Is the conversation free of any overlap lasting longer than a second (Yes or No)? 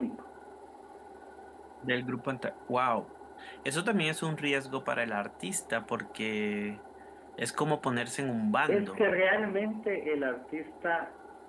Yes